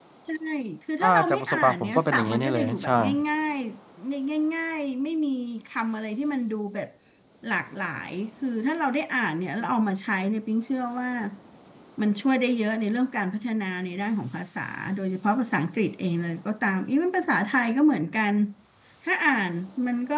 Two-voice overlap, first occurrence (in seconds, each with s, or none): 1.0 s